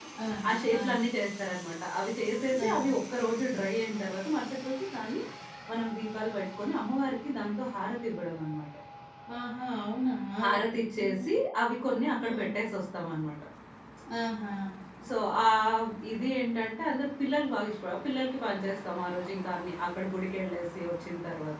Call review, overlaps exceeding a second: none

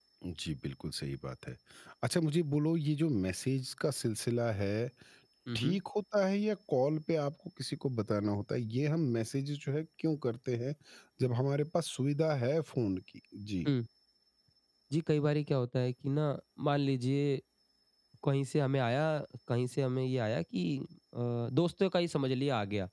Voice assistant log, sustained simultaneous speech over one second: none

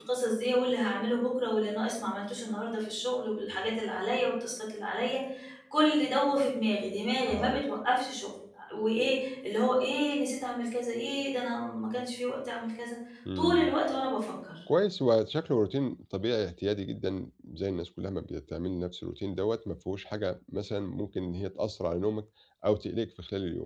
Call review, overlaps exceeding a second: none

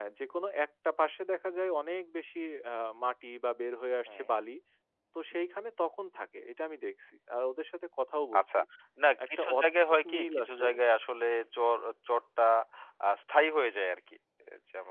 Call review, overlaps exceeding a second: present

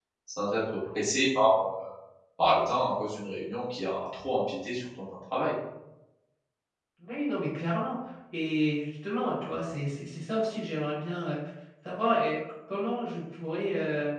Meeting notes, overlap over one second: none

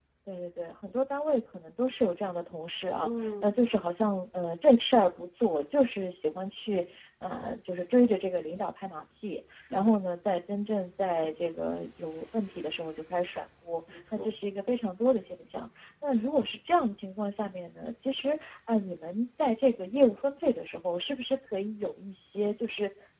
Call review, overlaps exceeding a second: none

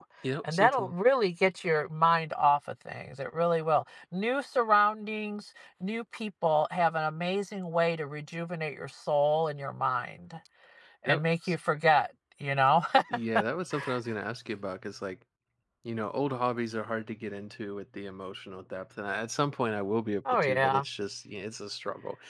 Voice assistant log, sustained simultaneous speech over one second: none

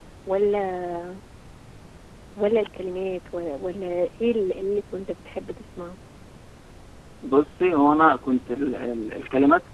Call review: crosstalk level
none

